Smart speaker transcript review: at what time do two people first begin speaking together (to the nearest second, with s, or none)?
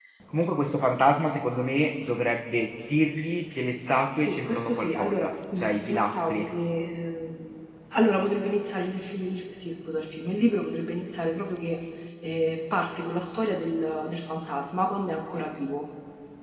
4 s